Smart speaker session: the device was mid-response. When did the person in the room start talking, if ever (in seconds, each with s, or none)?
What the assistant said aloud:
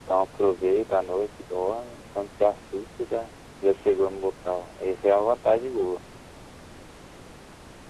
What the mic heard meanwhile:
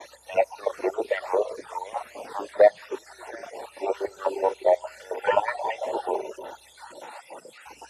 none